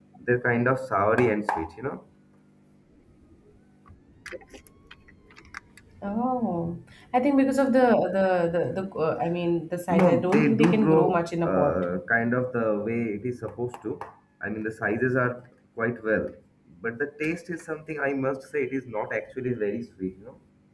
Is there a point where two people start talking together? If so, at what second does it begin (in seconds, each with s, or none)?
9.9 s